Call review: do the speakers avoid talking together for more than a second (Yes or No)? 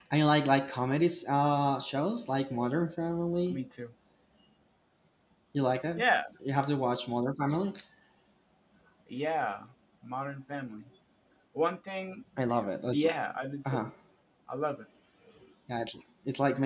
Yes